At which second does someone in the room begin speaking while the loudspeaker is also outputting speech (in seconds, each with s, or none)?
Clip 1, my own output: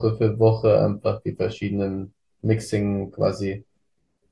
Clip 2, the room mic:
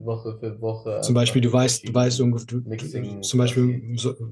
1.0 s